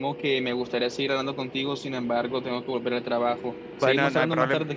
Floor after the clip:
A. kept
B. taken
B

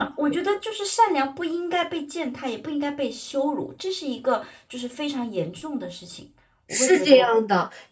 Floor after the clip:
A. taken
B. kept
A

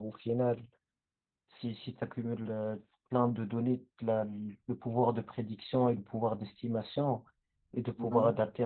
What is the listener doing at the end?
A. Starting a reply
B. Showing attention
B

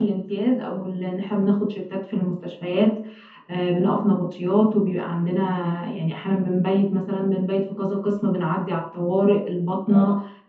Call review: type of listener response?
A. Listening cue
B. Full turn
A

